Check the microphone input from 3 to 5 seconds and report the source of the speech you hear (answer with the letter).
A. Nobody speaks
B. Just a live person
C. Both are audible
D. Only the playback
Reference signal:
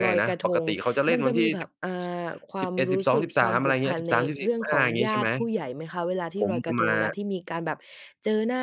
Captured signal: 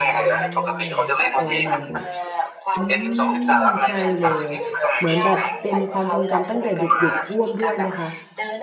C